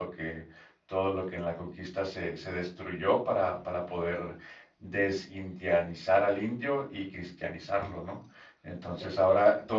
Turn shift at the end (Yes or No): No